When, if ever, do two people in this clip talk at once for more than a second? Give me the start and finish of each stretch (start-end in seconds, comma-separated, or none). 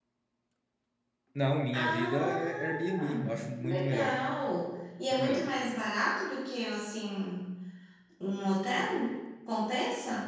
1.7-4.1